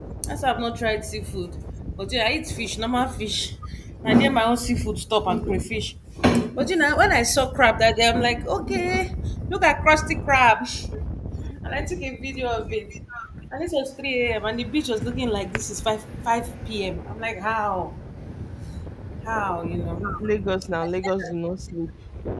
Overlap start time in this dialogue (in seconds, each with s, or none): none